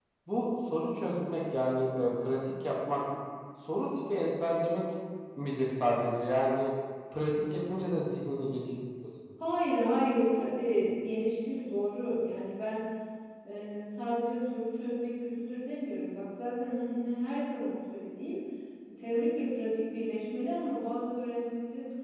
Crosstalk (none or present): none